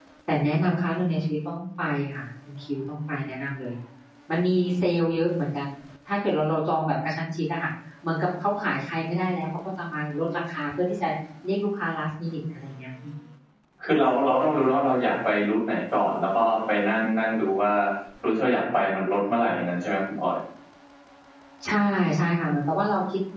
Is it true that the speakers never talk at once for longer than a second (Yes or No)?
Yes